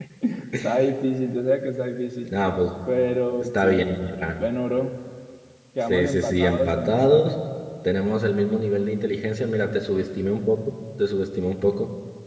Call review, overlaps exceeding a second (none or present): present